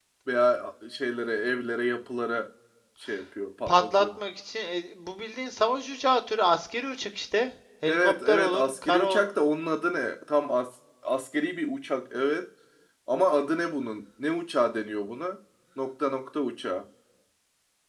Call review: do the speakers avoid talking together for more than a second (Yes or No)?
No